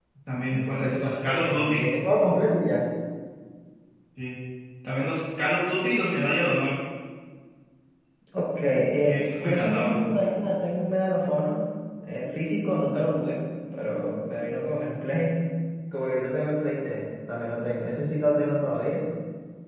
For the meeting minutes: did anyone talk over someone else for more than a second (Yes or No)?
Yes